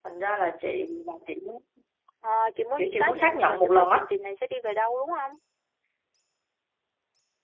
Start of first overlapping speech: 2.8 s

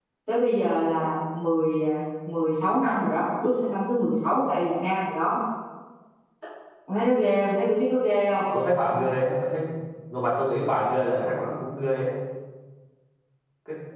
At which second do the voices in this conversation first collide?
none

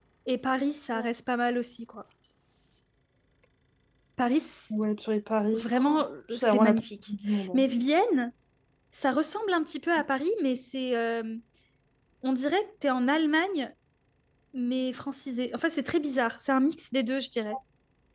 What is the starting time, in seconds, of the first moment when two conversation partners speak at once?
5.5 s

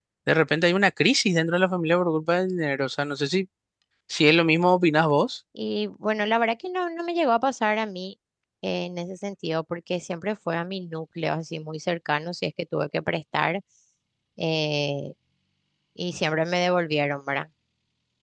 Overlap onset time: none

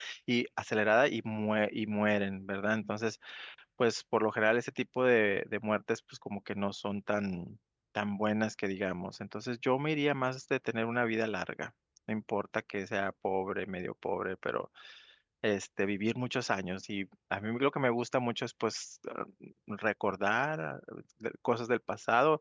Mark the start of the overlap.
none

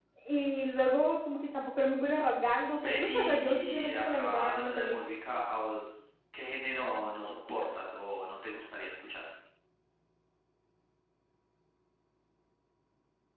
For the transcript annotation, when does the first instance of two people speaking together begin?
2.8 s

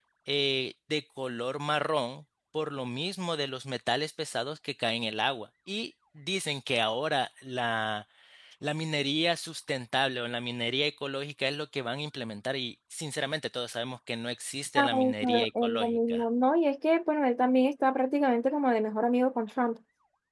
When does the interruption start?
14.8 s

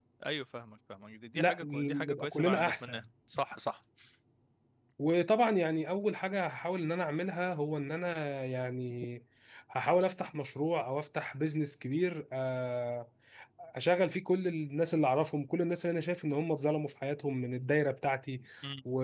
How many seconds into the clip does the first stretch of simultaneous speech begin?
1.3 s

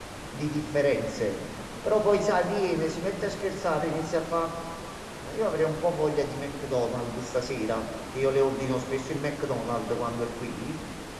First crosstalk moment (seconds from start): none

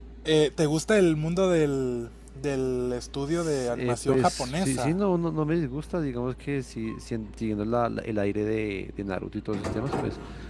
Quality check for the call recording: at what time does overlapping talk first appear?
3.3 s

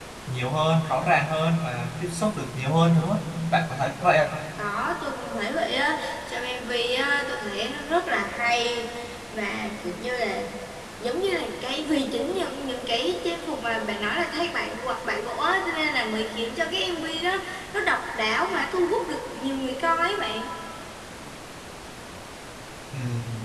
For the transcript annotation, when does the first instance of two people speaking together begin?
none

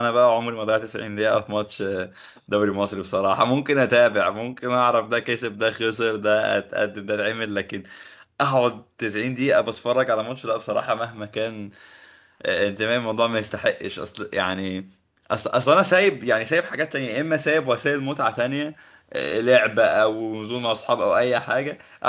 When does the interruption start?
none

